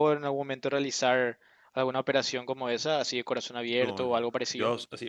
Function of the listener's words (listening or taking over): taking over